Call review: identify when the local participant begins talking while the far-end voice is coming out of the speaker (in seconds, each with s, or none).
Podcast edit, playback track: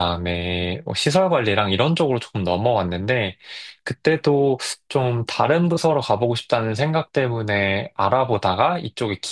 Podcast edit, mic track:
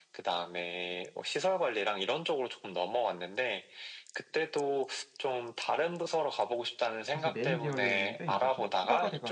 7.1 s